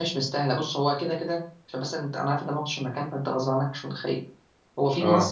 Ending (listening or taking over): listening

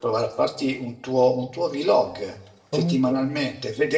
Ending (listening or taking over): listening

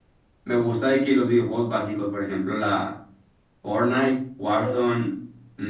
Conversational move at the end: listening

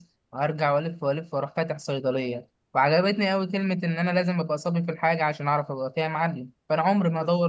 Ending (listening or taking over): listening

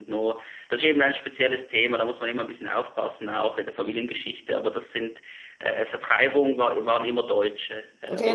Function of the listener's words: taking over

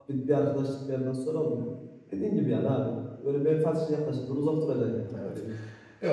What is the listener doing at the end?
taking over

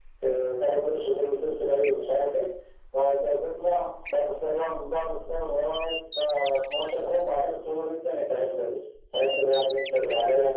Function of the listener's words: listening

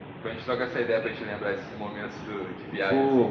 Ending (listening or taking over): taking over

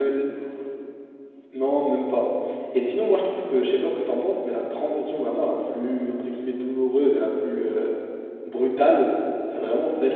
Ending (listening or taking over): listening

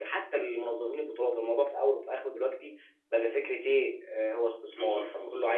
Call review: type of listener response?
listening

